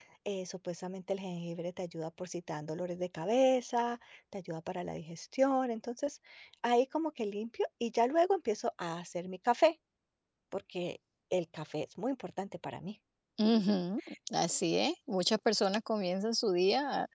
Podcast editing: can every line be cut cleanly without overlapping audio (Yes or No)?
Yes